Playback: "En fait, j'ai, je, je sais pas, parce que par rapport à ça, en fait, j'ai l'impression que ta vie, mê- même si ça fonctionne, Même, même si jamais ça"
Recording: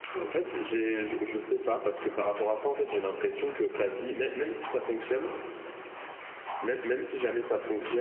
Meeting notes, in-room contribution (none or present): none